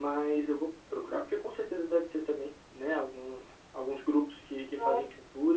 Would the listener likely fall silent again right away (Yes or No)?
Yes